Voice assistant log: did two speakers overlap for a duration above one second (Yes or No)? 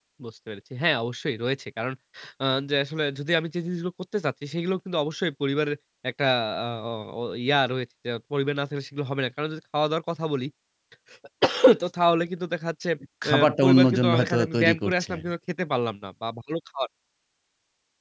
Yes